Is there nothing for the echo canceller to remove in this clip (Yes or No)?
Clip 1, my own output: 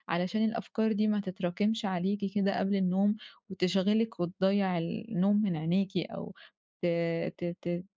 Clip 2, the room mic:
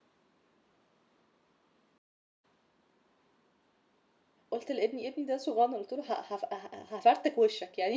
Yes